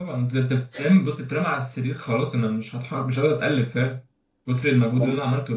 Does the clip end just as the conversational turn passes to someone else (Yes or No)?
No